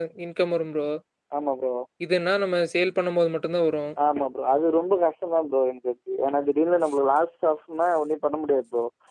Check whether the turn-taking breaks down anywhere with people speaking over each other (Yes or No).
No